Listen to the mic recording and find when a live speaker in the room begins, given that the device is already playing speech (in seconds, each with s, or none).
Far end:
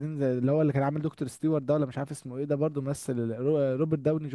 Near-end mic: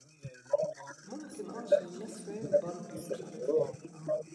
1.0 s